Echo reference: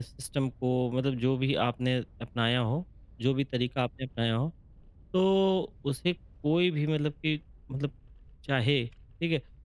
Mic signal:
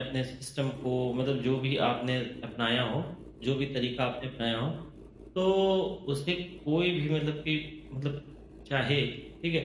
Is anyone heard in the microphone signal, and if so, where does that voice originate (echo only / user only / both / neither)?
echo only